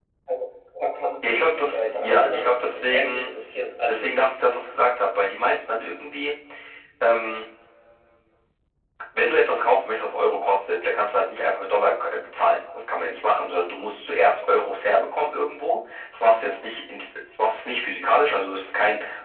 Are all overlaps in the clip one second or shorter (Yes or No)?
No